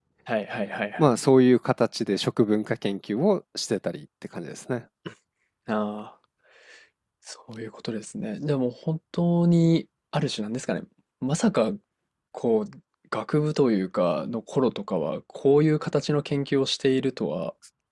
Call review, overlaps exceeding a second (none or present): none